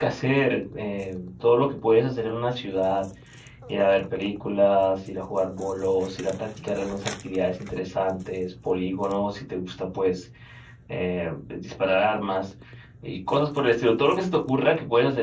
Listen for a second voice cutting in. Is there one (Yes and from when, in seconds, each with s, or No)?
No